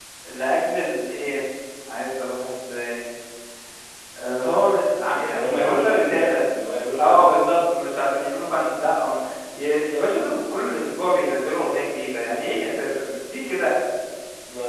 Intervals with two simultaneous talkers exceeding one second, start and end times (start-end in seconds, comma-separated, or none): 5.1-6.4